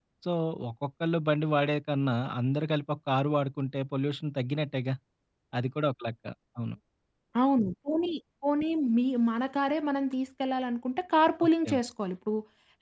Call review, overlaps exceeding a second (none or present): none